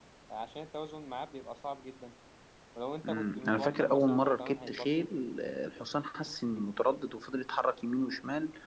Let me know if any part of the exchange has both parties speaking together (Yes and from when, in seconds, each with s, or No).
Yes, from 3.0 s